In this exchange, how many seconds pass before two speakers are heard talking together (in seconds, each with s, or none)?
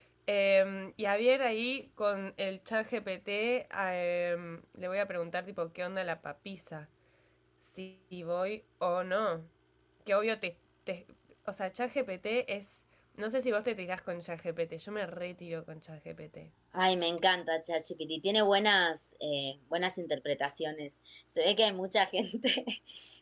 none